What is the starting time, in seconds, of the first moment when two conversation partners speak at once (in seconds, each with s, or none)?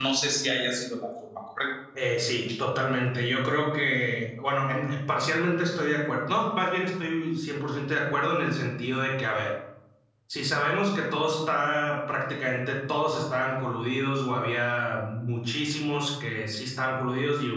none